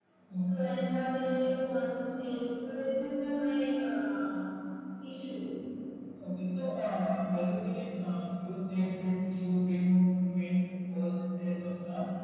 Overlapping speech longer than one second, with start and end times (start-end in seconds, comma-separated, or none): none